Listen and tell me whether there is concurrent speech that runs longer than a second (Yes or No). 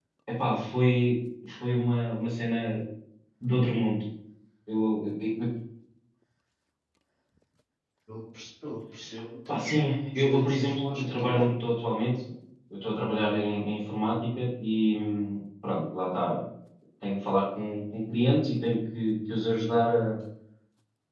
Yes